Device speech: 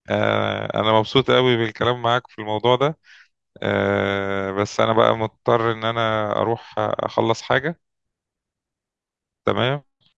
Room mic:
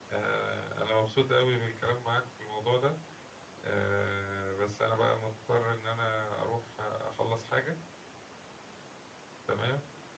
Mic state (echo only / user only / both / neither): echo only